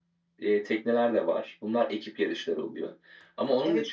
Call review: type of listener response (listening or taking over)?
listening